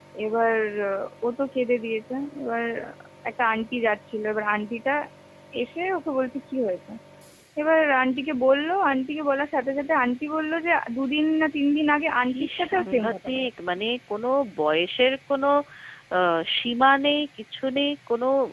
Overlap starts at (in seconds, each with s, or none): 12.3 s